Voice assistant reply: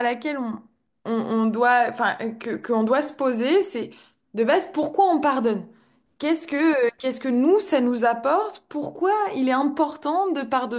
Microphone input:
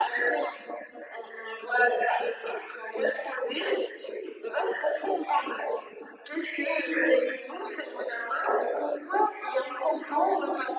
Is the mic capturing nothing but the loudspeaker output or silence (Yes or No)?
Yes